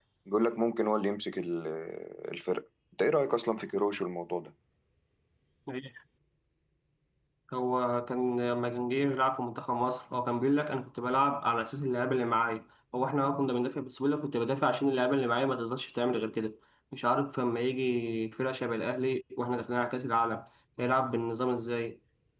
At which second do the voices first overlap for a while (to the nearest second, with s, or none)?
none